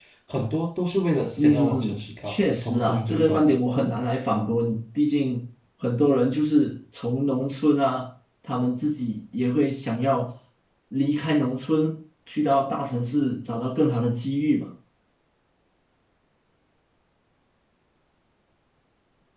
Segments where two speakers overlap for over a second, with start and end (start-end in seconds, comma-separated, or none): 1.4-3.6